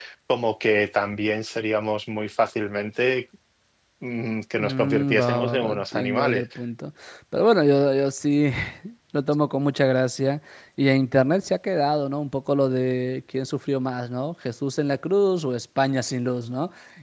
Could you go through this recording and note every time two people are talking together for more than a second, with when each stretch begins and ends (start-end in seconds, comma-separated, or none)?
4.5-6.4